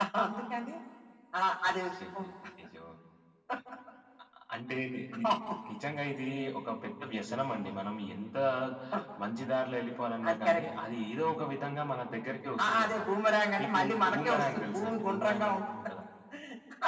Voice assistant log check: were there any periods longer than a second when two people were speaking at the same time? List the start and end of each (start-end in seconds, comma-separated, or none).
13.6-15.6